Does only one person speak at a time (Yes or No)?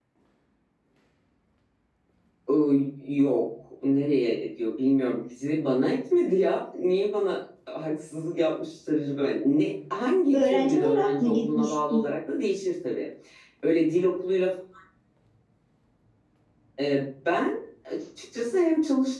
No